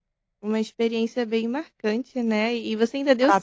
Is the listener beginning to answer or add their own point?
No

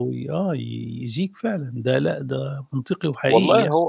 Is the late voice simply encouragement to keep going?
No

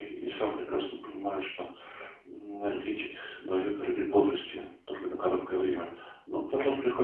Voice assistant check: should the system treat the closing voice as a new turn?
No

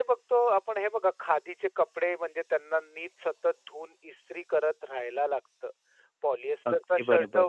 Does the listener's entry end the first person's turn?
No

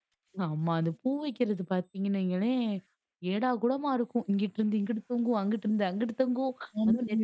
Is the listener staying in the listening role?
Yes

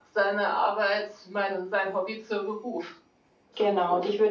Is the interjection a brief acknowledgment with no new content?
No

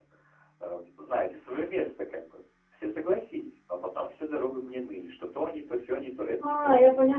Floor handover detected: Yes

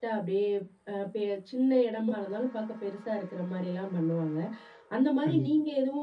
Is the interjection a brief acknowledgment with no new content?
Yes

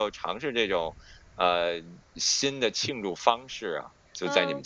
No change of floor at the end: No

